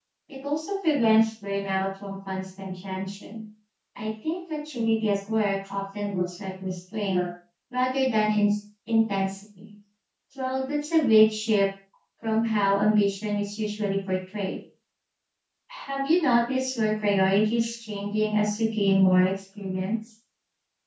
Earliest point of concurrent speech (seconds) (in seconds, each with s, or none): none